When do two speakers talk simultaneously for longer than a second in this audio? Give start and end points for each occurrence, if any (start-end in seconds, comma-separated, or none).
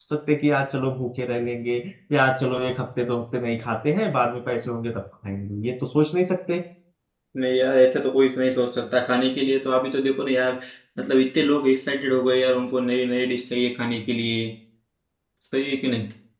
none